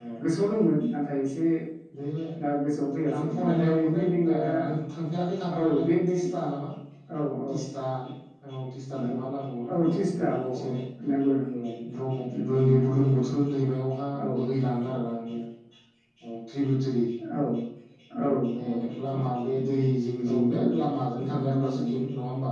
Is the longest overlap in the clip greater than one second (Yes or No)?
Yes